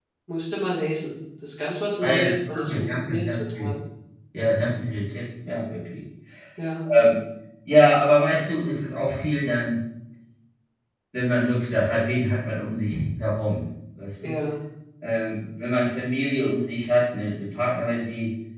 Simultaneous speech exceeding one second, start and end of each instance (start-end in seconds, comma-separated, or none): 2.0-3.7